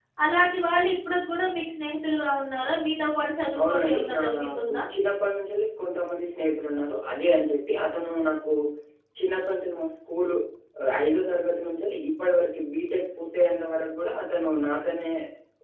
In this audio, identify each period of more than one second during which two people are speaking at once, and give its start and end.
3.6-4.8

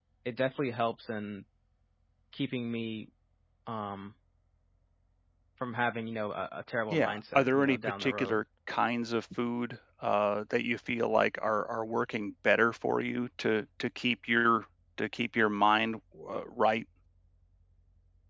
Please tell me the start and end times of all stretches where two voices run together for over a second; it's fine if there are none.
6.9-8.4

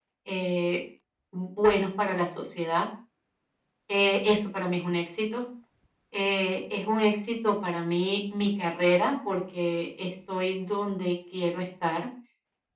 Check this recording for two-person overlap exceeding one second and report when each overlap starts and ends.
none

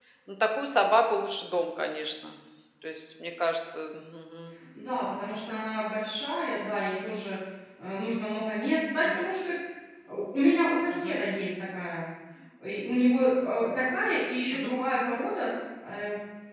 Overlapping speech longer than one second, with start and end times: none

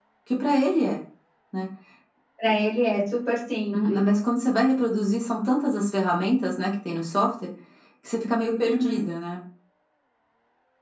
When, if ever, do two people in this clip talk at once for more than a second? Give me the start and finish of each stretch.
none

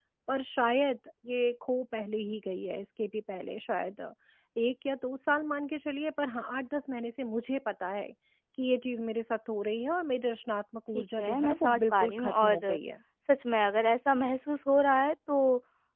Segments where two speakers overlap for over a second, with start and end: 10.9-12.8

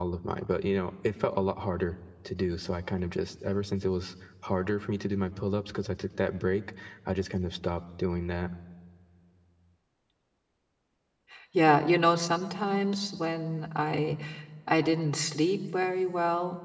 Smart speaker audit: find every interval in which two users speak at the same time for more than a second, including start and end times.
none

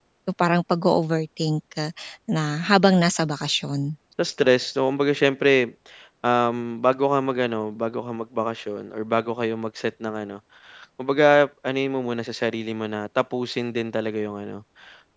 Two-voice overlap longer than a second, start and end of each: none

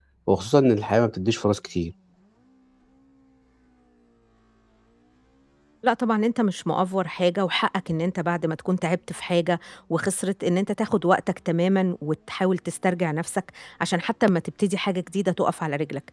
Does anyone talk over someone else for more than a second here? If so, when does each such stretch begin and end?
none

